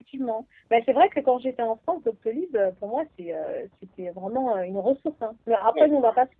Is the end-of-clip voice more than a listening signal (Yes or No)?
No